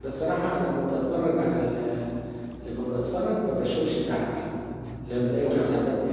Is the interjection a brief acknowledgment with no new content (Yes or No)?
Yes